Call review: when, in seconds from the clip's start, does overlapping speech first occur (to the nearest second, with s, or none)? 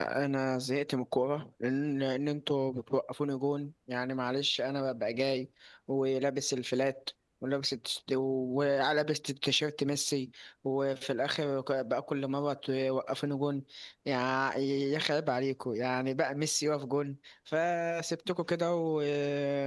none